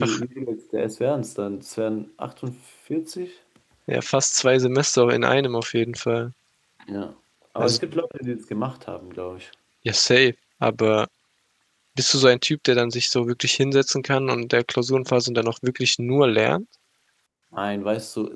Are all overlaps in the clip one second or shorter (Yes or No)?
Yes